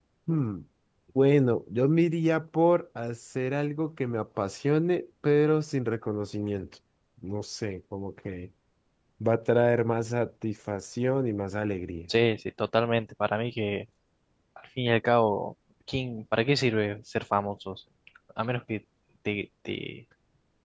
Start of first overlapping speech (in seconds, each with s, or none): none